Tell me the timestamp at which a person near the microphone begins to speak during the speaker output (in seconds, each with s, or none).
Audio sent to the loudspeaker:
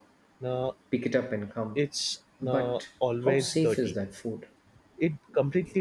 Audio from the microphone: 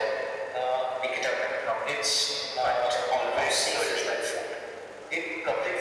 none